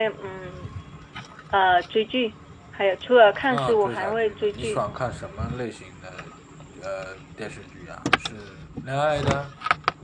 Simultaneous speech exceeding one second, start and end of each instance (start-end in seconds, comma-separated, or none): 3.5-4.8